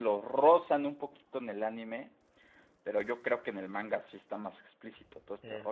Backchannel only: No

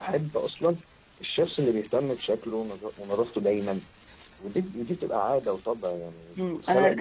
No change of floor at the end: No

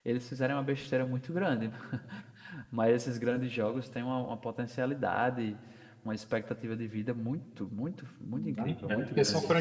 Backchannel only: No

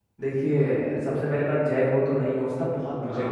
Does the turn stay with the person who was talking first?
Yes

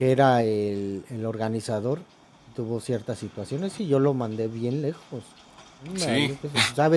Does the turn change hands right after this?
No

